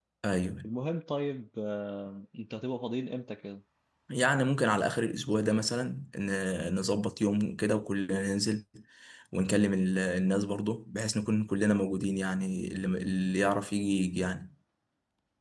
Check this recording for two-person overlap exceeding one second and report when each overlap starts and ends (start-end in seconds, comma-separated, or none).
none